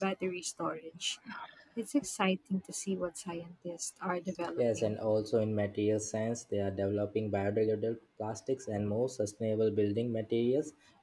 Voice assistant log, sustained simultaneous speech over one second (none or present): none